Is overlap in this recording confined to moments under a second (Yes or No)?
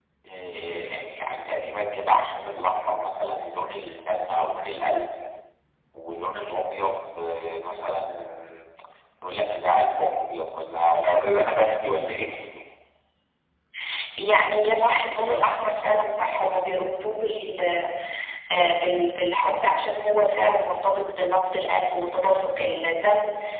Yes